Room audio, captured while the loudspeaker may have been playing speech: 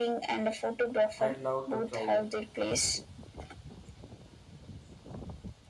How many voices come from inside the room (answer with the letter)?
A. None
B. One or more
B